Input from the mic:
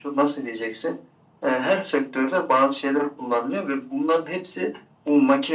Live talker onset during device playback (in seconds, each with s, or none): none